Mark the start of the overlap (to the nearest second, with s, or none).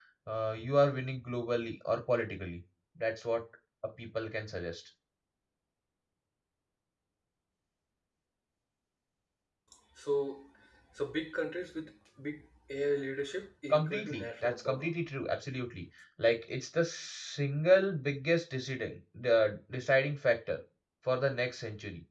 14 s